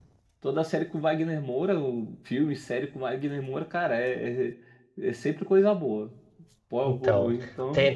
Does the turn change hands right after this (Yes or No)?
Yes